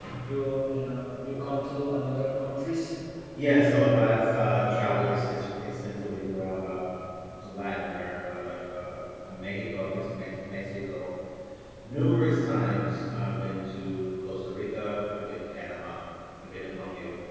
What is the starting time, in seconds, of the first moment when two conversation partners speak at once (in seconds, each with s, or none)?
none